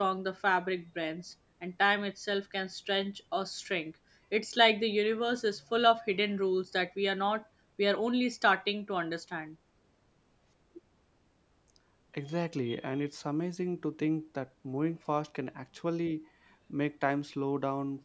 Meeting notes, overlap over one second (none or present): none